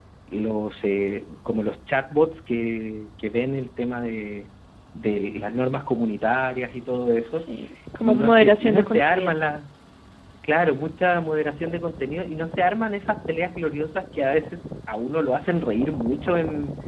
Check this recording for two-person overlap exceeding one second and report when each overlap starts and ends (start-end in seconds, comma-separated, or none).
8.0-9.4